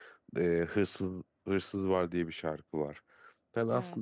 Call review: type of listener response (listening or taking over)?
listening